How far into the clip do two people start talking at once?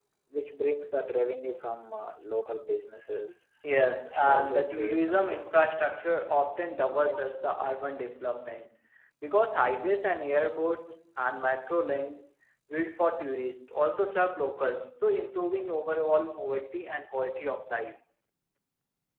4.1 s

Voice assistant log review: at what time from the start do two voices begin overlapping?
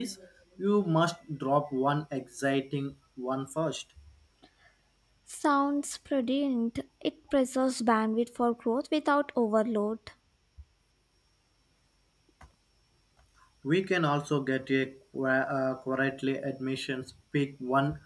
none

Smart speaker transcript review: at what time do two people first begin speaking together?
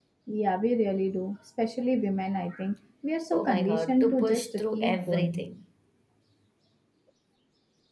3.3 s

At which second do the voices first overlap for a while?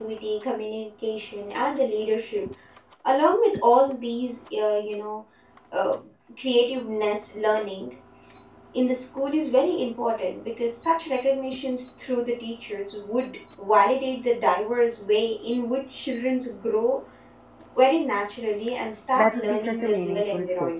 19.2 s

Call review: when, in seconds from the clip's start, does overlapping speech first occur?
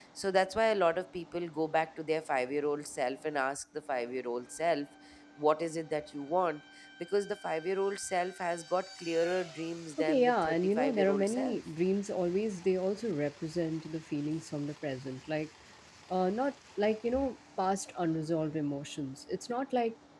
10.0 s

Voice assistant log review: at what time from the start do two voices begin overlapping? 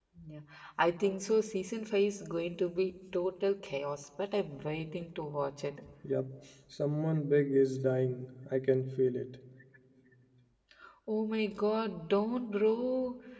none

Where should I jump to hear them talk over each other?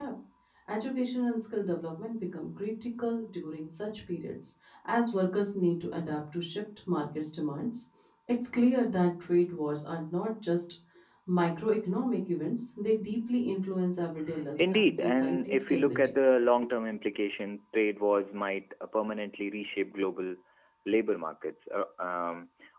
14.6 s

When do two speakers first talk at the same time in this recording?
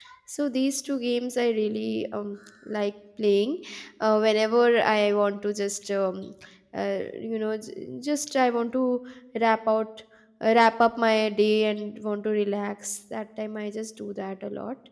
none

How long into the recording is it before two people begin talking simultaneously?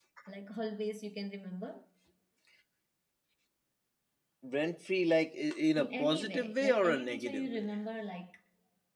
5.8 s

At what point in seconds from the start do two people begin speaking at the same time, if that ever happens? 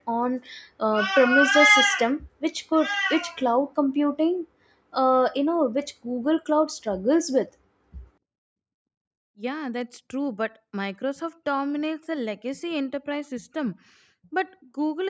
none

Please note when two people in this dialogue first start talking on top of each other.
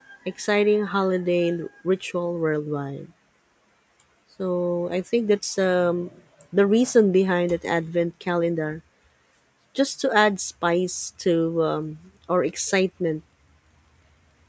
none

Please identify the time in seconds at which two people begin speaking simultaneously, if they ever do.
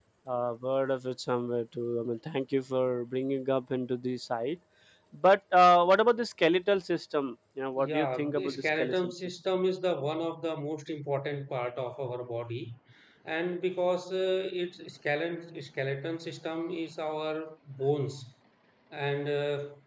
7.8 s

